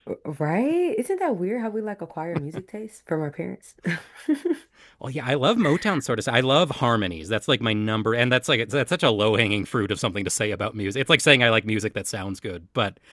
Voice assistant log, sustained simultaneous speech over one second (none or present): none